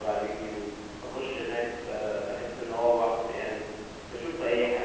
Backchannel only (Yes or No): Yes